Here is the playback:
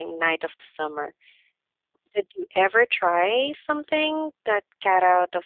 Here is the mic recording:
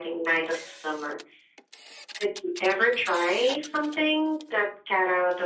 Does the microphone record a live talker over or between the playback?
No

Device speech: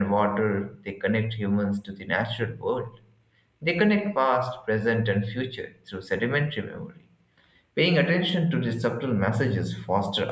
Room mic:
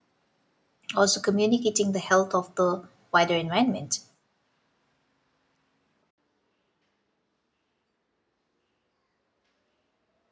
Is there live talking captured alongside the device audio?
Yes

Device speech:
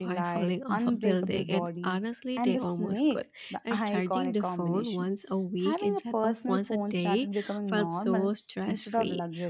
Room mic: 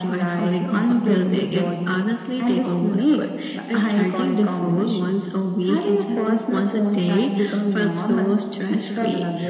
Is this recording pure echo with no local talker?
Yes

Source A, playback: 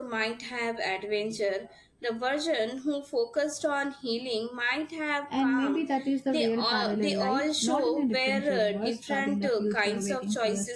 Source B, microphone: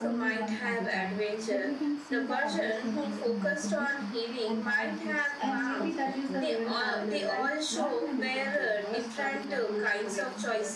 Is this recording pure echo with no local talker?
No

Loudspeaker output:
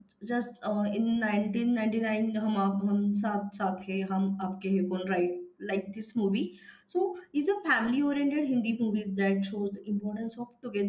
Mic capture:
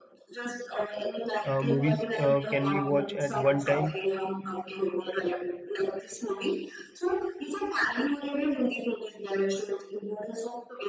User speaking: Yes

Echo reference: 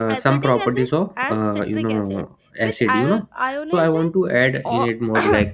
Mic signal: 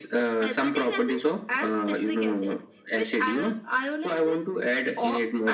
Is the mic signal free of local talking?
Yes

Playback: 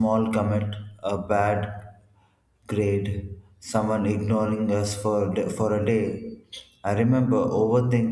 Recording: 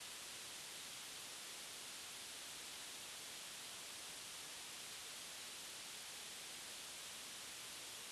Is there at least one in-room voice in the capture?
No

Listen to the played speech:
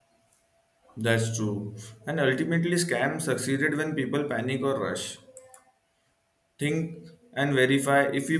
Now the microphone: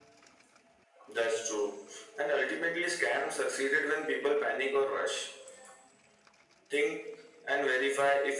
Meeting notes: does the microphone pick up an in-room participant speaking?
No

